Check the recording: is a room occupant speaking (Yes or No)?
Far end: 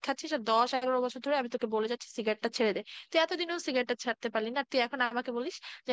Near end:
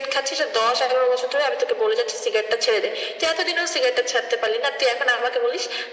No